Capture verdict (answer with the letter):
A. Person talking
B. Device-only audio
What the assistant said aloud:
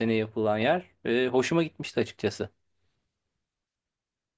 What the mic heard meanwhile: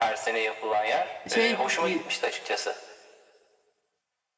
A